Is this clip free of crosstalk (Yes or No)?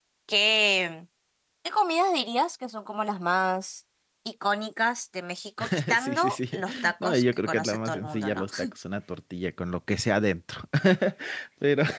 No